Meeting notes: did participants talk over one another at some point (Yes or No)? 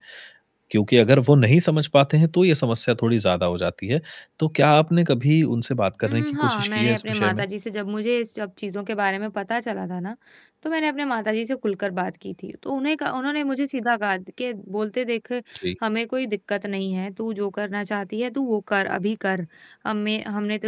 Yes